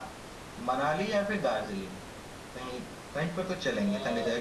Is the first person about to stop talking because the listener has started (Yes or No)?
No